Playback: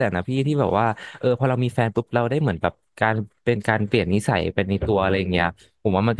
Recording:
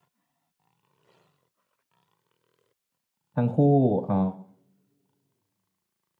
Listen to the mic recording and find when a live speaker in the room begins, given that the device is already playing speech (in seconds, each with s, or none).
3.4 s